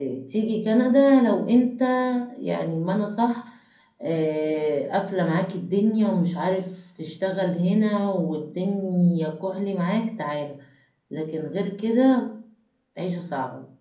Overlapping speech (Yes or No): No